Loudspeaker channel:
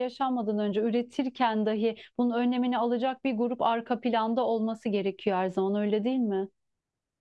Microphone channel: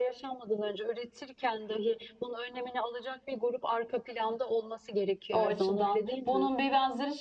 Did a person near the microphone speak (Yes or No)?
Yes